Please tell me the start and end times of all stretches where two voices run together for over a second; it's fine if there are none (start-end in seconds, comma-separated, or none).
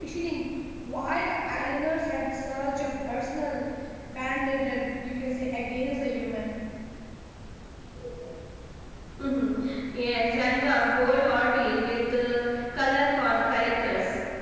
none